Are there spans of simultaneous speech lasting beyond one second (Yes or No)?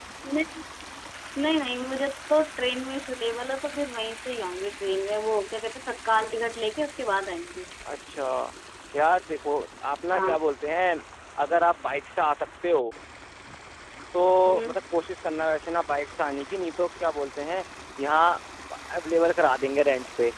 No